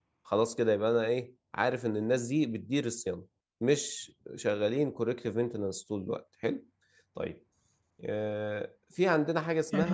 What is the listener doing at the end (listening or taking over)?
taking over